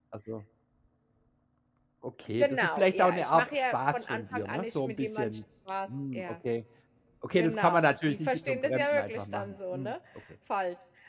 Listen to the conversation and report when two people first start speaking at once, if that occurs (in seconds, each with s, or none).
2.3 s